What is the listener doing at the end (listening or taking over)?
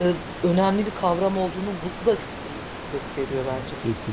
taking over